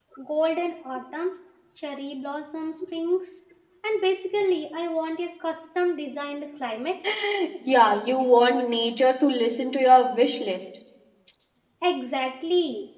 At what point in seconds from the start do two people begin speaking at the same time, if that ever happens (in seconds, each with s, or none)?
none